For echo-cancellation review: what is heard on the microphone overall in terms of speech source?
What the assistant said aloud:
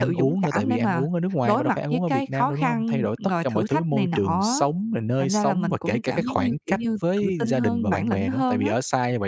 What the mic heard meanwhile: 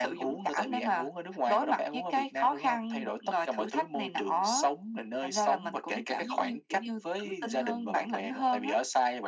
echo only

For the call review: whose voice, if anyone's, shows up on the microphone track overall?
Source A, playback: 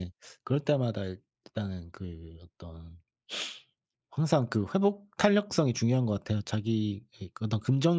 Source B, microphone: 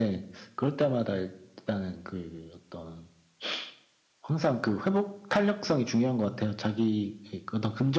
echo only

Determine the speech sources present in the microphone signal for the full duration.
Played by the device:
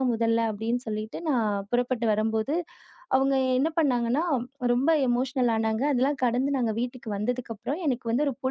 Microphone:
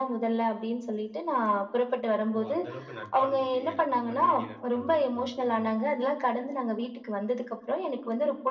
both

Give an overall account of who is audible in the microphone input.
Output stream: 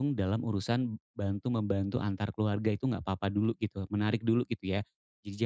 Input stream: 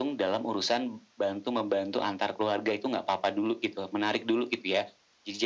echo only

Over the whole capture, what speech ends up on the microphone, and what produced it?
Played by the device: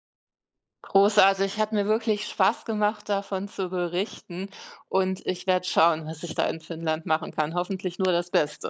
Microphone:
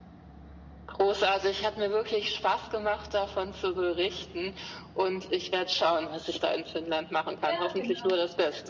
both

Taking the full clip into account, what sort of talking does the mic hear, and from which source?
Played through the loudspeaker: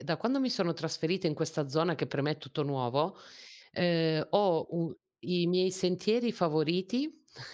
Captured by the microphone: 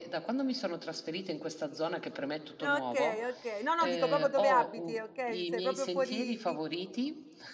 both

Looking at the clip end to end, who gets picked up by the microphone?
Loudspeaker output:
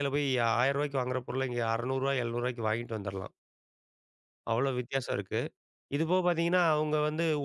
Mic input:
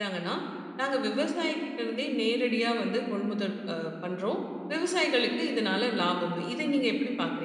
user only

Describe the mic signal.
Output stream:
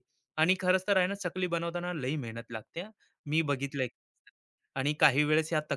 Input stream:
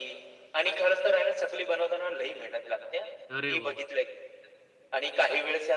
both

